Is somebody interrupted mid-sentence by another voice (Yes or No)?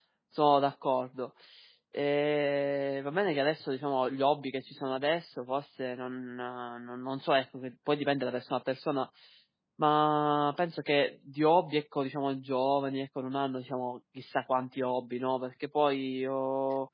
No